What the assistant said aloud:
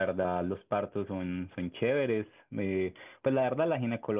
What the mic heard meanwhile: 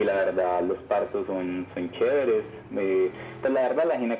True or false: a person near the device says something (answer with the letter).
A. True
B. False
B